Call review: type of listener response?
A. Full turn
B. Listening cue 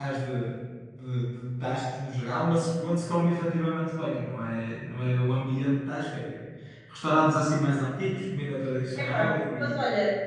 A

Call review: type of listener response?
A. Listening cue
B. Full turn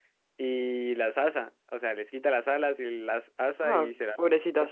B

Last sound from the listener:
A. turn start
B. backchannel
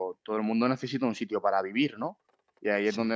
B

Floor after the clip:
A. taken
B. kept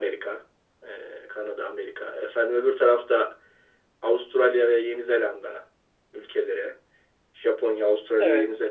B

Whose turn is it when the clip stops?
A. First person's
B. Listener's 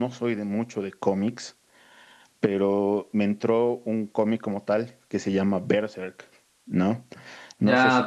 B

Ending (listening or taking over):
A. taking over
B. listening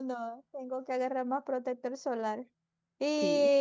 B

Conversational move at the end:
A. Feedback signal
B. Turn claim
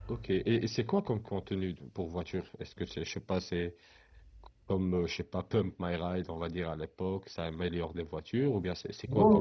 B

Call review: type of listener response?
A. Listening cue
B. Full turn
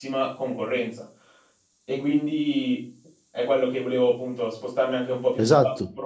A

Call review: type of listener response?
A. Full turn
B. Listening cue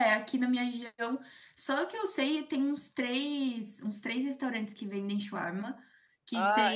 B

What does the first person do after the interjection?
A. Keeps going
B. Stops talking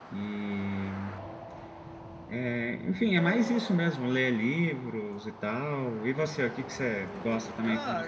B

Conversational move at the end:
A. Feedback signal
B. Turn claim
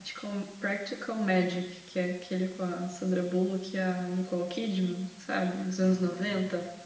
B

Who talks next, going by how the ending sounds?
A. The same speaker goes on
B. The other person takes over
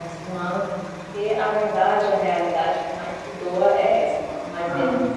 A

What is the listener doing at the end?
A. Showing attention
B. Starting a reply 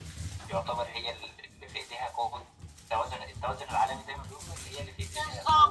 B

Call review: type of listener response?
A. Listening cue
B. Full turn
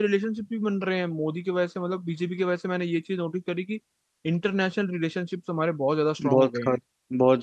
B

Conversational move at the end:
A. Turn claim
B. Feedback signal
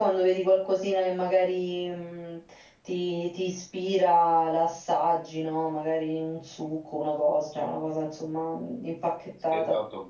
A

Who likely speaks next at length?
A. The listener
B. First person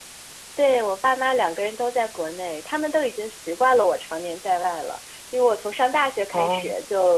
B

